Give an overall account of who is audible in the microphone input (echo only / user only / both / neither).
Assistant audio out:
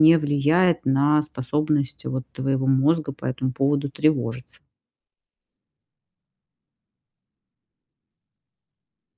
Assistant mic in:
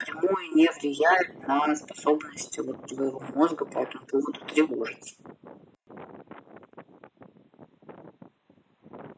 echo only